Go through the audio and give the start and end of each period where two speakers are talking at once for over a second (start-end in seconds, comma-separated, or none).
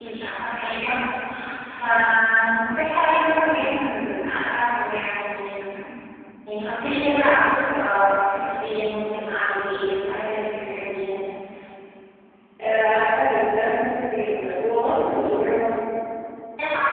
none